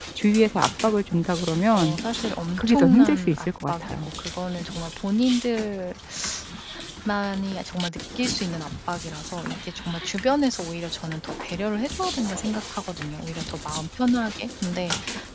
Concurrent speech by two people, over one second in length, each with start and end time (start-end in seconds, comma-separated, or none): 2.6-4.1